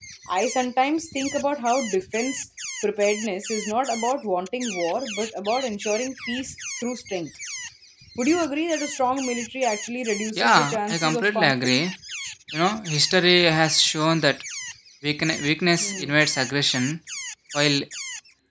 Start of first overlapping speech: 10 s

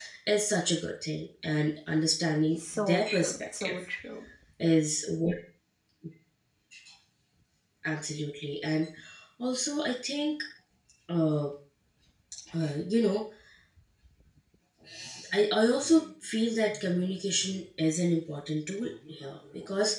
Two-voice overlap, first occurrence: 3 s

